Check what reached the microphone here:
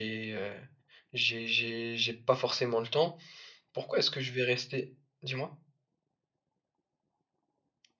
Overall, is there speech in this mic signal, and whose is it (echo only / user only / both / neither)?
user only